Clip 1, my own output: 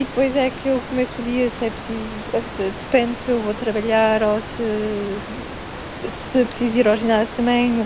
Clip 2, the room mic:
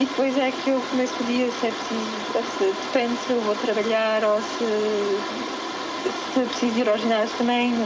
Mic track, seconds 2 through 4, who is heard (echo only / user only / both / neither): echo only